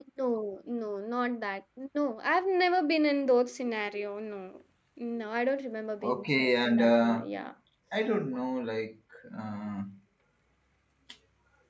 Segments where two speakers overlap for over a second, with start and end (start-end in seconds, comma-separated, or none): 6.0-7.2